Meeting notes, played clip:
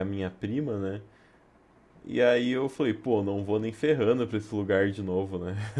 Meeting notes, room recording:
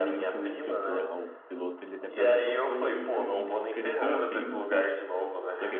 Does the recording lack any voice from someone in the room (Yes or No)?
No